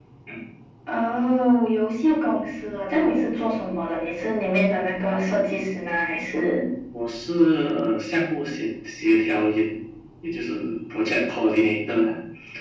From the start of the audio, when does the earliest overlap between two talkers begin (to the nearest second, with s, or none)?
none